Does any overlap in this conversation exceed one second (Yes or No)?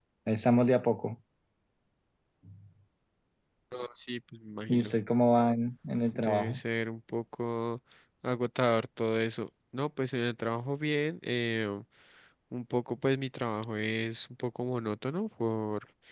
No